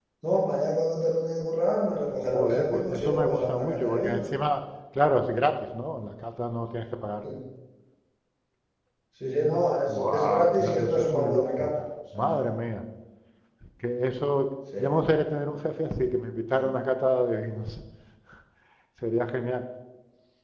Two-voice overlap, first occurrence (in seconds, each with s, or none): 2.3 s